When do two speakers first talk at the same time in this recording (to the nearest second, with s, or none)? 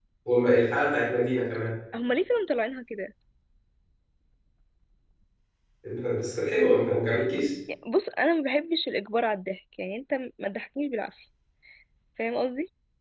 none